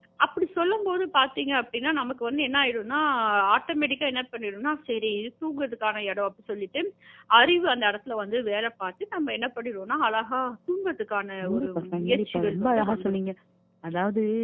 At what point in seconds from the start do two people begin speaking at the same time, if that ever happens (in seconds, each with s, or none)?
11.4 s